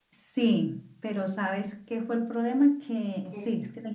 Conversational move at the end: listening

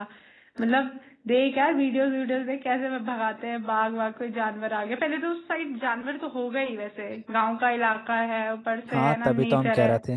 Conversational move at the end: taking over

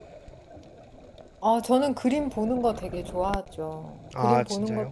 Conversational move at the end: listening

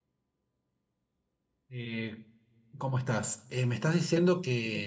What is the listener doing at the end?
listening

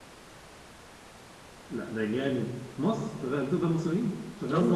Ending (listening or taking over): taking over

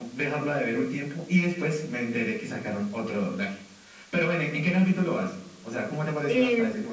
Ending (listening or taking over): taking over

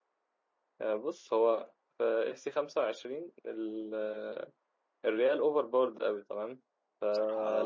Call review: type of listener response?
listening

